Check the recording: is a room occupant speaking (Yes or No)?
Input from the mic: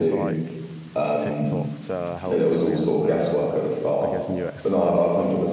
Yes